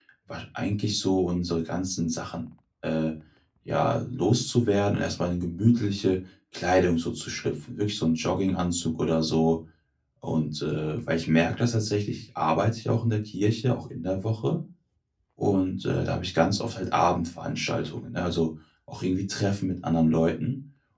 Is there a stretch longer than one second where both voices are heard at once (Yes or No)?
No